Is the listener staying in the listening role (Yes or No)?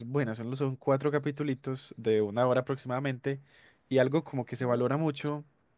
Yes